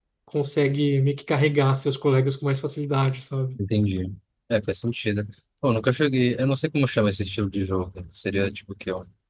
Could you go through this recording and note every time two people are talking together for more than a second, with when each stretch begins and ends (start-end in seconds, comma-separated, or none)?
none